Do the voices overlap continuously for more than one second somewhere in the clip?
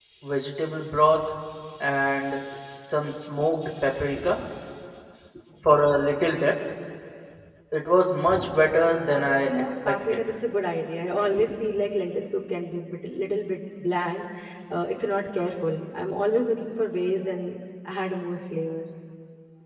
Yes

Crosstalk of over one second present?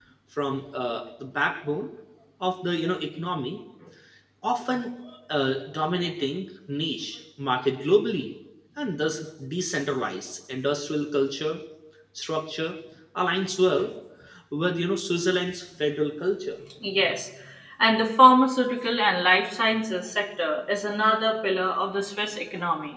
No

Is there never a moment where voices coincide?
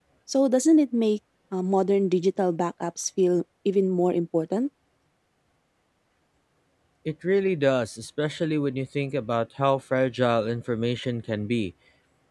Yes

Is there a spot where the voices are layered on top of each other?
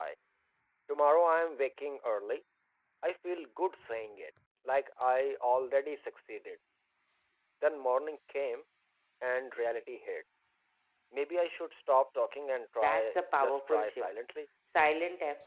Yes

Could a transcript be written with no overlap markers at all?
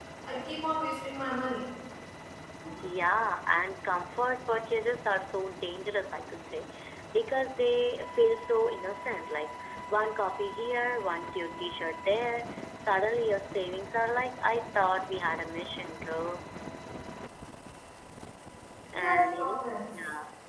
No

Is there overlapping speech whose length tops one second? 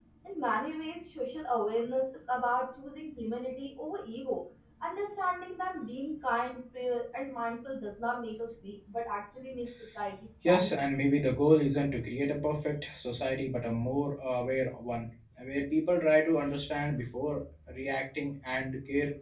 No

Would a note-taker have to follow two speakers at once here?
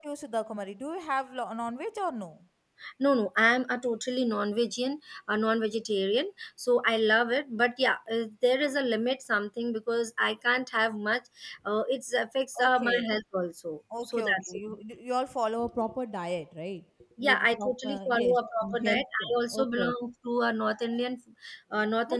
Yes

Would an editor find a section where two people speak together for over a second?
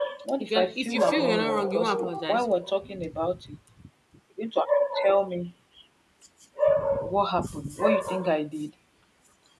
Yes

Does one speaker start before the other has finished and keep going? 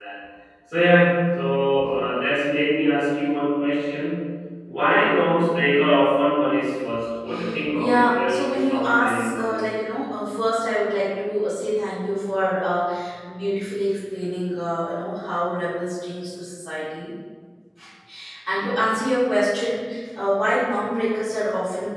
Yes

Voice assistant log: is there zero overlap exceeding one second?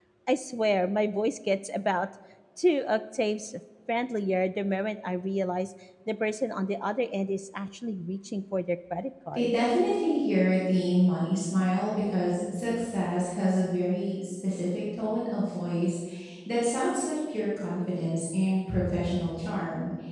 Yes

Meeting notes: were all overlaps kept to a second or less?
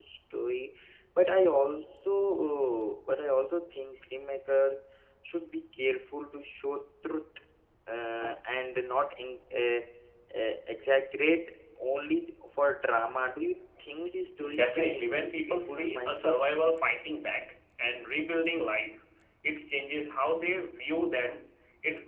No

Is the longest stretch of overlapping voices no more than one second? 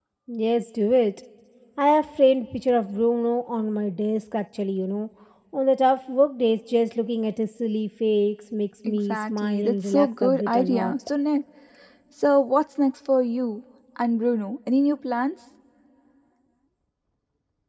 No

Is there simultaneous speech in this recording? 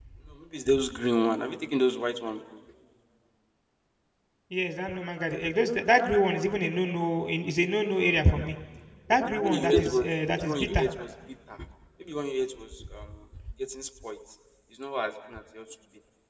Yes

